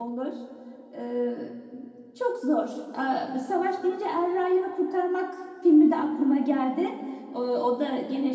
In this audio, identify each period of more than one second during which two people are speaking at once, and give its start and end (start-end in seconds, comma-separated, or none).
none